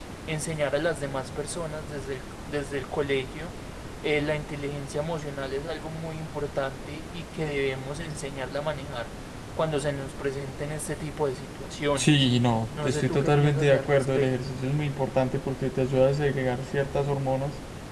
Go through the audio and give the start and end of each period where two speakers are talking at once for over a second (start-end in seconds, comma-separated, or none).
12.8-14.3